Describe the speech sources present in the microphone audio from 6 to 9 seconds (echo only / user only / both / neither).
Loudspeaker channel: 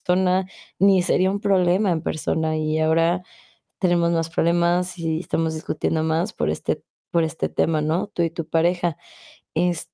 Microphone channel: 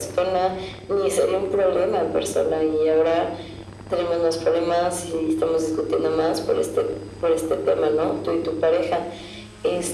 echo only